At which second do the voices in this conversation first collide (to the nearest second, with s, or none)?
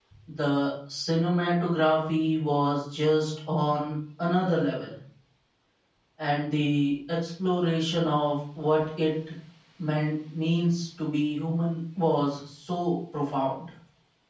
none